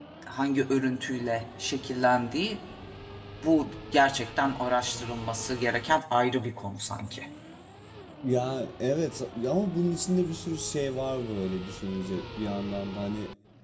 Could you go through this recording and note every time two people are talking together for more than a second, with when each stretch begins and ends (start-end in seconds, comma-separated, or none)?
none